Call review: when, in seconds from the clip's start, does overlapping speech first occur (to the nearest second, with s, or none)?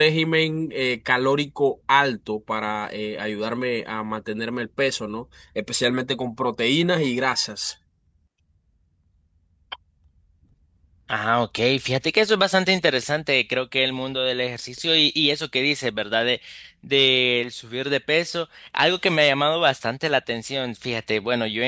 none